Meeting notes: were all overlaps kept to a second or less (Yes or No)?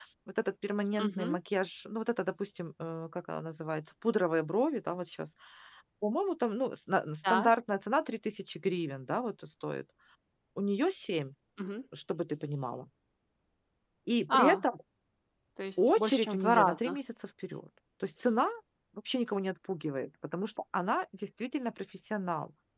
No